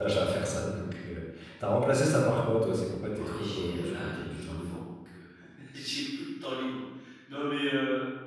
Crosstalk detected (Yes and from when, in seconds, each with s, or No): Yes, from 3.2 s